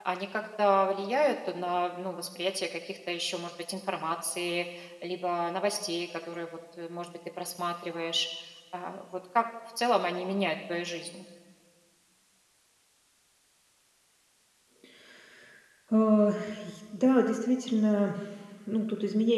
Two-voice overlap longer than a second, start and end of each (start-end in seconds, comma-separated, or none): none